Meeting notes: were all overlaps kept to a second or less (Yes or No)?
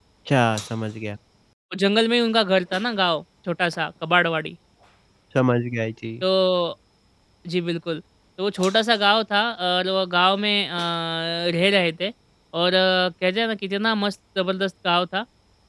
Yes